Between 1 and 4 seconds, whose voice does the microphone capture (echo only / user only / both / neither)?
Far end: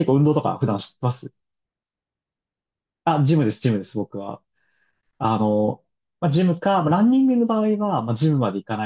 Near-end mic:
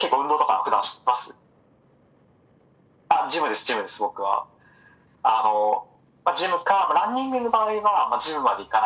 echo only